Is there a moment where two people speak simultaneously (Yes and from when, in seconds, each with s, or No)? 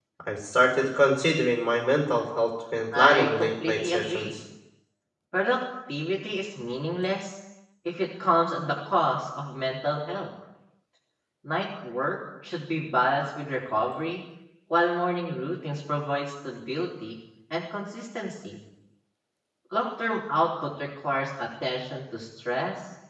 Yes, from 2.9 s